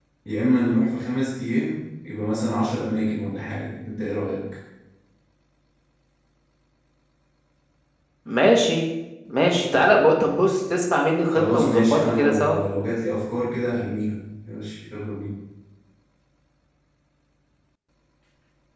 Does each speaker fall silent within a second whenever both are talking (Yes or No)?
No